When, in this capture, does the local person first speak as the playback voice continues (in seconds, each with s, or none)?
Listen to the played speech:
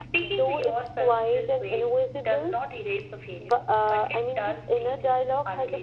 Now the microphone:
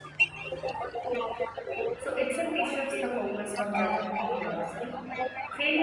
2.0 s